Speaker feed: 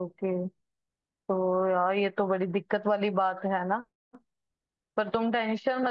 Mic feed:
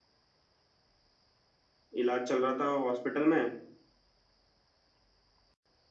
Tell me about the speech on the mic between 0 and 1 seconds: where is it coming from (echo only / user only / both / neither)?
neither